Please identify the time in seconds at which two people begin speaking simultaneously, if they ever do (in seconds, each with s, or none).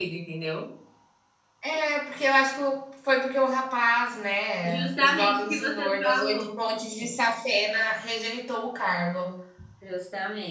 4.6 s